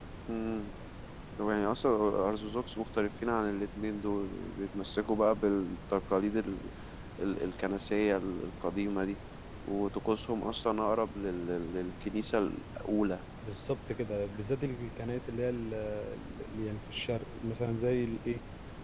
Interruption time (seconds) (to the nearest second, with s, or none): none